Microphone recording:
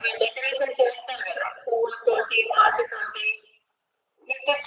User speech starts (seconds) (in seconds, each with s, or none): none